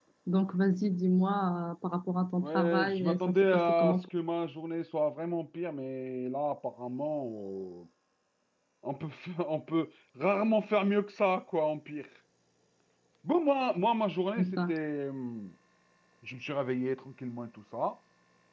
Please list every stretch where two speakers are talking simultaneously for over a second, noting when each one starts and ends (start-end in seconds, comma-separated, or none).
2.4-4.1